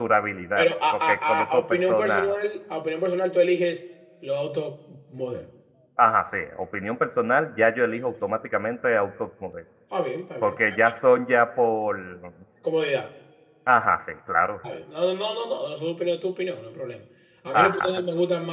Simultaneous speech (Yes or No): Yes